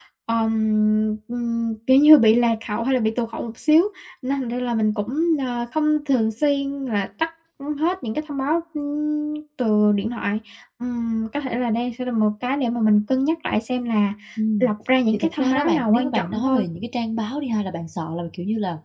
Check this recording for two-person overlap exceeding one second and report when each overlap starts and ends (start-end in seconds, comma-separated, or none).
15.1-16.6